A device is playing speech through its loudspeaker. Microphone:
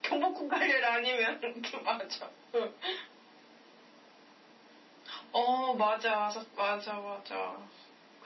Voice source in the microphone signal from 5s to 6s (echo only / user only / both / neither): echo only